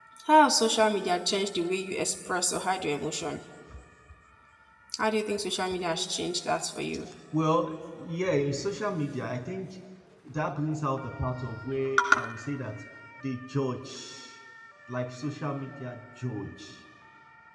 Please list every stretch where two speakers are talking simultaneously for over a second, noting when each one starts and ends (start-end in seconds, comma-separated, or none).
none